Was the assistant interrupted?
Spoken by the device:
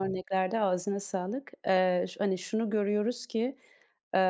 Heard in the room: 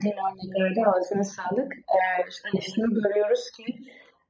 No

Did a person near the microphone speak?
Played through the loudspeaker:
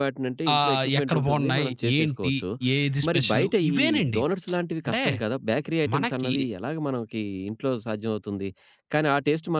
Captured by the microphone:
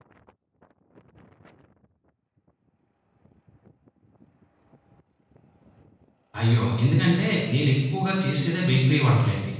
Yes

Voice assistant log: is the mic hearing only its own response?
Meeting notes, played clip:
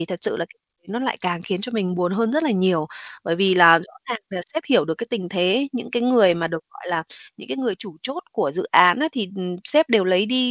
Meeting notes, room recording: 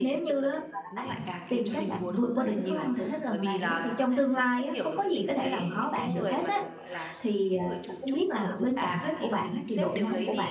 No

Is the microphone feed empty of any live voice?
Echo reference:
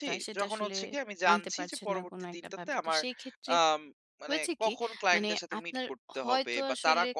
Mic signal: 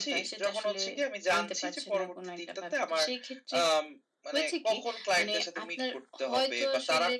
Yes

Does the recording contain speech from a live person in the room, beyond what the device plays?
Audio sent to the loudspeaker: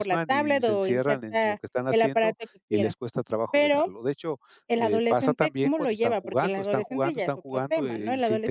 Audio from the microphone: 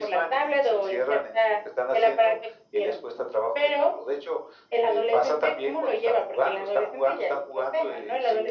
No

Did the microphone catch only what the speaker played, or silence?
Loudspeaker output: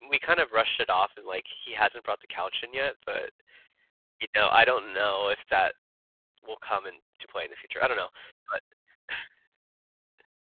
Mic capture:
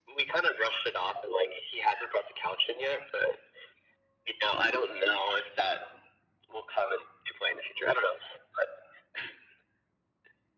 Yes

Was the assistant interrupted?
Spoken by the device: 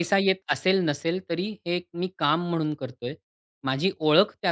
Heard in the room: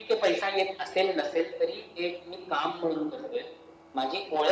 No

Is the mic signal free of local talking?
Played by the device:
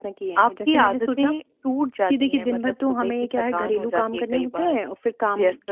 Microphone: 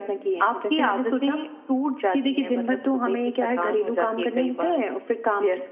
Yes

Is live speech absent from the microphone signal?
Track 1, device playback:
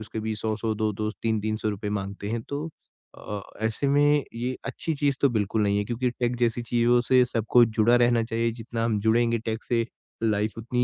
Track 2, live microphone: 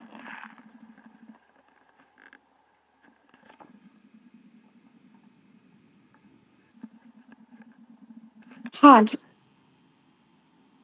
No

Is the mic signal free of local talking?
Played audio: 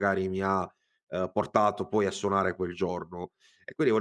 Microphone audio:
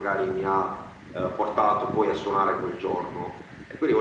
Yes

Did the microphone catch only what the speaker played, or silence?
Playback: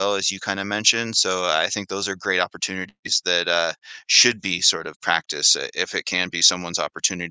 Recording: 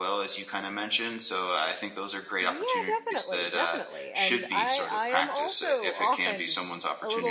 No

